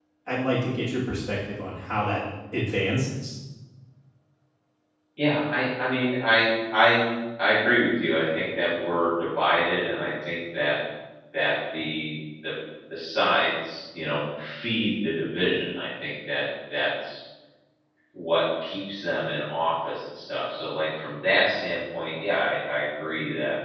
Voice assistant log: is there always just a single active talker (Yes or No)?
Yes